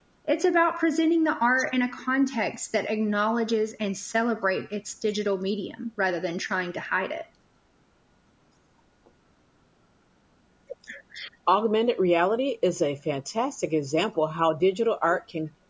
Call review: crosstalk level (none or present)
none